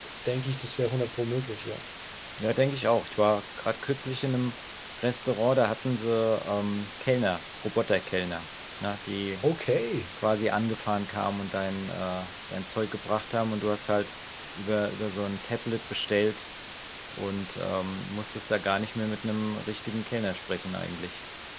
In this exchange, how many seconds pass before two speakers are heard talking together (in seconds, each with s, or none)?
none